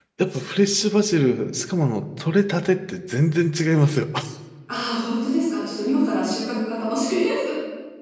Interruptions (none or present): none